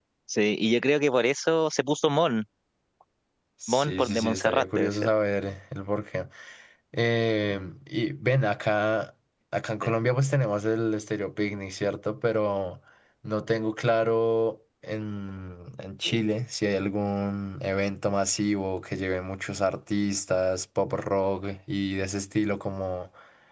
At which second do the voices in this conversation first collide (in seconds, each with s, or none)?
3.7 s